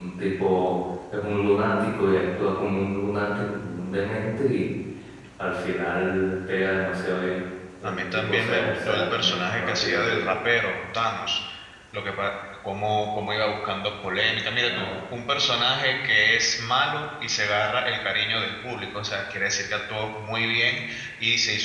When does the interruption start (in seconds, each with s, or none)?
7.8 s